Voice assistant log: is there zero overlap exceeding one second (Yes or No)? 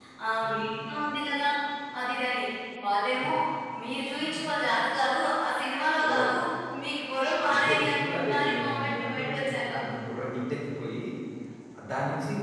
No